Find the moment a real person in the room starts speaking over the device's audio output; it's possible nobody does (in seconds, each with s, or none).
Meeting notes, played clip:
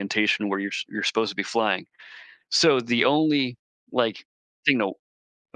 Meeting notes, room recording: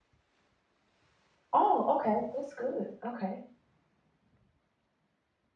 1.5 s